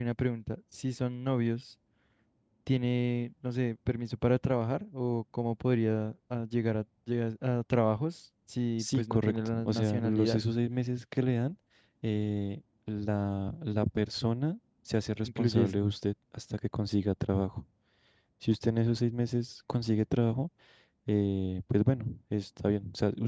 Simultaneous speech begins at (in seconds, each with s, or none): 8.8 s